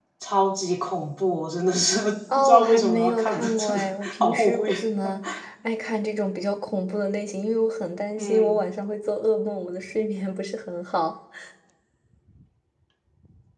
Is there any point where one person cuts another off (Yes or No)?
Yes